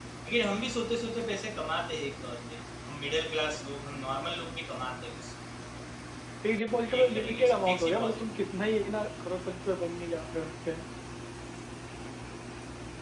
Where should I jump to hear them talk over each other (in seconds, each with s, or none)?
7.0 s